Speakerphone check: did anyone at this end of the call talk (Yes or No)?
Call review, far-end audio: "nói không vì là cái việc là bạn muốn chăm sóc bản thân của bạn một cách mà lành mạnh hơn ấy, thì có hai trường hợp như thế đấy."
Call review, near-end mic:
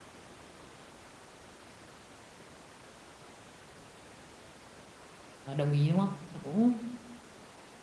Yes